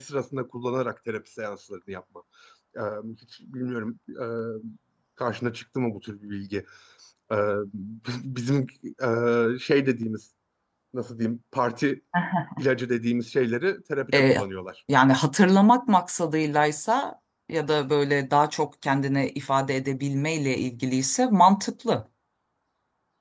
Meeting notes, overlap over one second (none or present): none